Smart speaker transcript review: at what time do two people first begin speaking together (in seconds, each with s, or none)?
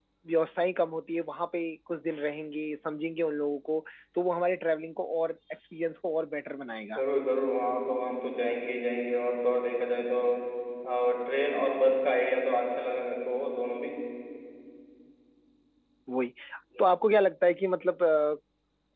none